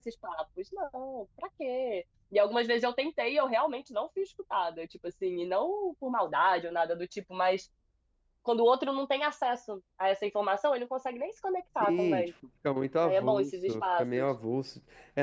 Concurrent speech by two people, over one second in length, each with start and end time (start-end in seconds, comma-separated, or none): 13.0-14.2